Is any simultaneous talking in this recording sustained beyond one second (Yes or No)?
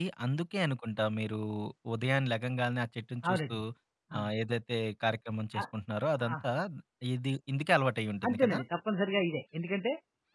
No